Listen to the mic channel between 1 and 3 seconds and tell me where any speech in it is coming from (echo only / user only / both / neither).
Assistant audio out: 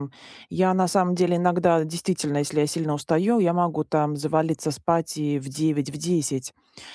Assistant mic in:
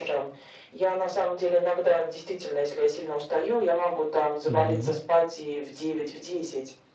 echo only